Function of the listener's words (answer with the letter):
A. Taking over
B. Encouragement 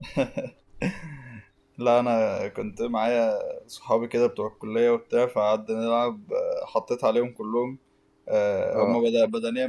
B